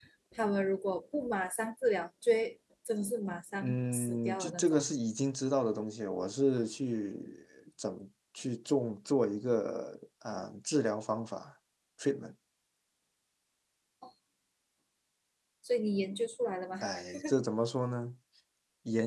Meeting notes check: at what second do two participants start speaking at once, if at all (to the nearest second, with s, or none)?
4 s